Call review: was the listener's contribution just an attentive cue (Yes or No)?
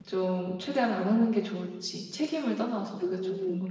No